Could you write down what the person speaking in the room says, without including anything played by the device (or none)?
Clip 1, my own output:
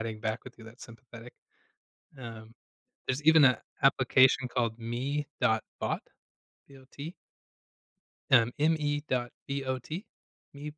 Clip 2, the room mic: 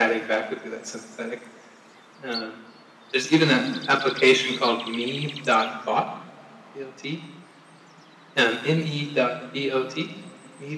No.